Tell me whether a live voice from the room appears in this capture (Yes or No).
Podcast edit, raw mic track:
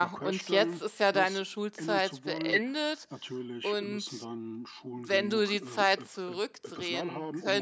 Yes